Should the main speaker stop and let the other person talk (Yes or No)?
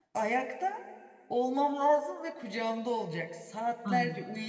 No